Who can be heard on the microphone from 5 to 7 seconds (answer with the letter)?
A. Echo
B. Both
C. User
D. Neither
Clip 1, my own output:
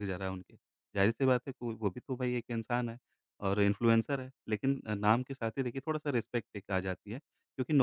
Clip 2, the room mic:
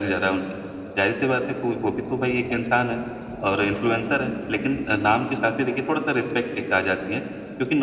A